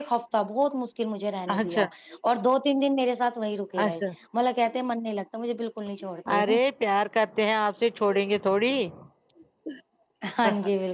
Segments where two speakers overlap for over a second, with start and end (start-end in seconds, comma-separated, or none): none